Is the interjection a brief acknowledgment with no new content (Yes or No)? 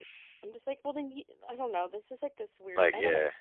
Yes